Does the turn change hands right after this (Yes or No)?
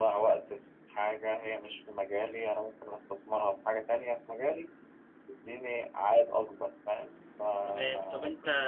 Yes